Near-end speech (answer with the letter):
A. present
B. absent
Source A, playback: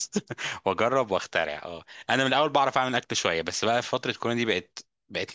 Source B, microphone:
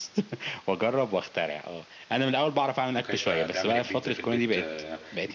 A